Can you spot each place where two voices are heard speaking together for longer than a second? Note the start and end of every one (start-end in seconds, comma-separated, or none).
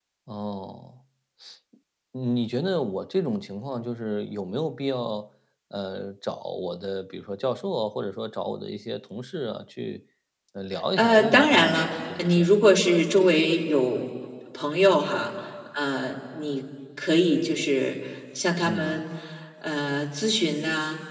11.0-12.6